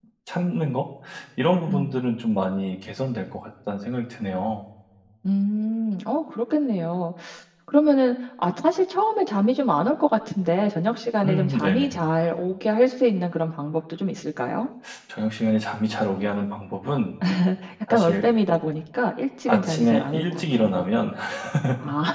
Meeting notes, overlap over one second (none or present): present